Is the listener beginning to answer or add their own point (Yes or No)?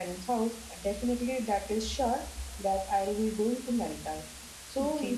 No